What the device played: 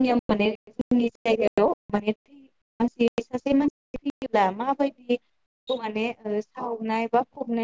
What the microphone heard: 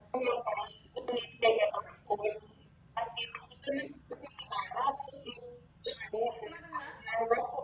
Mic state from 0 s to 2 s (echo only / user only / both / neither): echo only